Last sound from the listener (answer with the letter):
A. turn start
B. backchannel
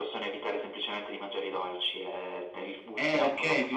A